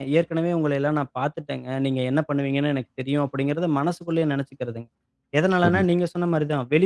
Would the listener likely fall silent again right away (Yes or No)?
Yes